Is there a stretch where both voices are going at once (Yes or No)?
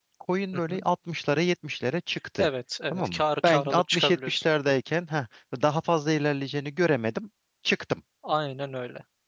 Yes